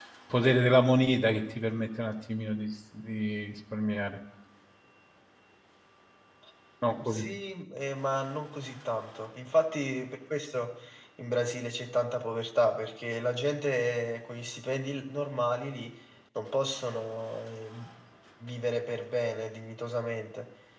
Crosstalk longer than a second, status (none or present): none